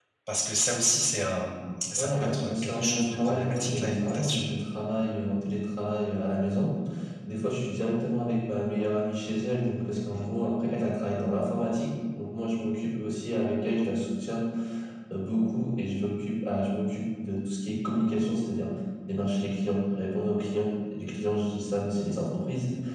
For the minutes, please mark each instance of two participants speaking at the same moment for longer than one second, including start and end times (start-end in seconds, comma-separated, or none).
2.0-4.5